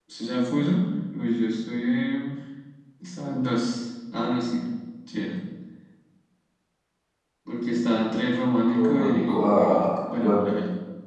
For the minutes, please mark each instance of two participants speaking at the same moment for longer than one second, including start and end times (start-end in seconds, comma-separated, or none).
8.7-10.4